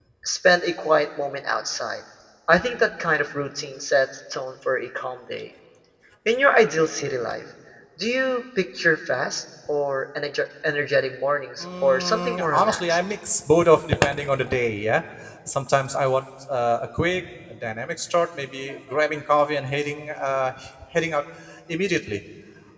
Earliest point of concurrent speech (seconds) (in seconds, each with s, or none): 11.6 s